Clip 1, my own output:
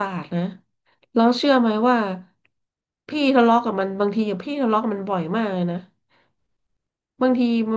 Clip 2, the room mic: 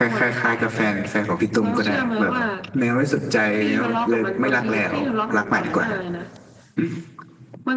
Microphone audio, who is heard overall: both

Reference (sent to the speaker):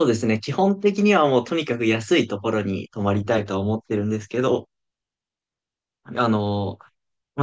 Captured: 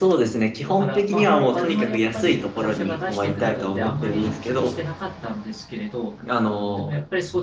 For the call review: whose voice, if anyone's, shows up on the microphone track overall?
both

